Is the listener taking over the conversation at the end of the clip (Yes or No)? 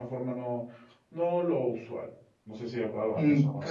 Yes